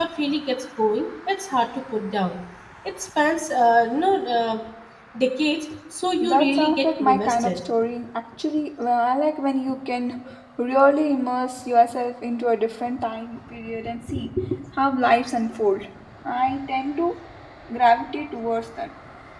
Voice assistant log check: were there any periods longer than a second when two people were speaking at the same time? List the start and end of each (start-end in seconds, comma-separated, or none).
6.2-7.5